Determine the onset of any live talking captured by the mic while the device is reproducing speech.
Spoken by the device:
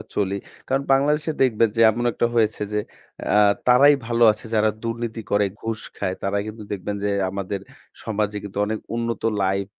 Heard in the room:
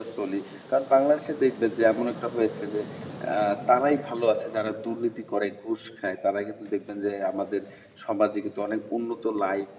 none

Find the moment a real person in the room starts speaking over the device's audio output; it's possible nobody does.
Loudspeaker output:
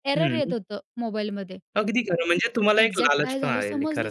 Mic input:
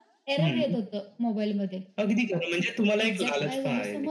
none

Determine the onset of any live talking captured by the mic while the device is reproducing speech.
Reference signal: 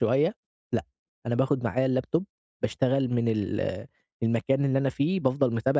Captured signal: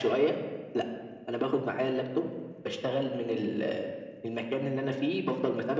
none

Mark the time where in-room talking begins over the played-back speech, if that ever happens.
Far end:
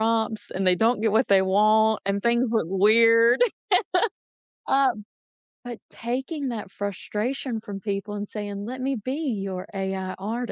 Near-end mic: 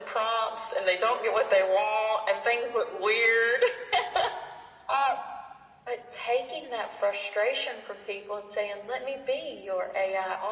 none

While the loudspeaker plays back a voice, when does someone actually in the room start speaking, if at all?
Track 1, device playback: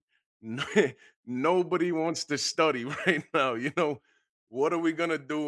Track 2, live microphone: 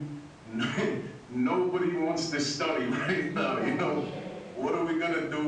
3.3 s

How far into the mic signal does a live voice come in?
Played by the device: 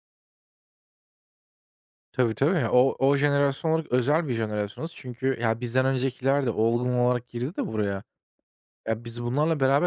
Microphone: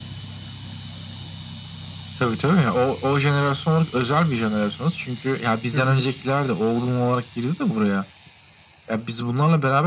5.7 s

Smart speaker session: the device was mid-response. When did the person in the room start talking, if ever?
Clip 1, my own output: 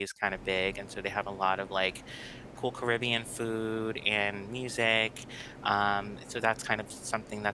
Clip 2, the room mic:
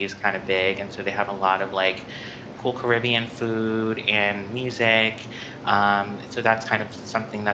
none

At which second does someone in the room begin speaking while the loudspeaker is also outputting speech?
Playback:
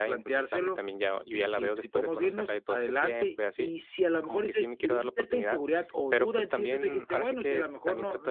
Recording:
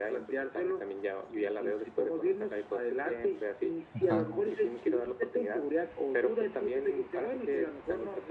3.9 s

